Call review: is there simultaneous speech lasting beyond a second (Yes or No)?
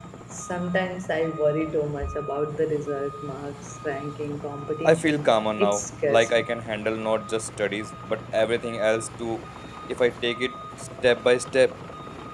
Yes